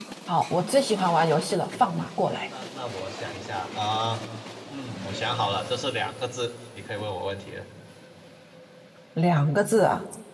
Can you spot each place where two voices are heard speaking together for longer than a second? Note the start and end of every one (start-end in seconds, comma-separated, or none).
none